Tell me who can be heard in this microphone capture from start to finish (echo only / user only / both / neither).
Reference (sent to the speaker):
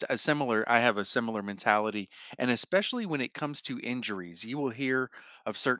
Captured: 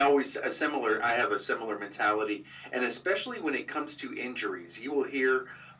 echo only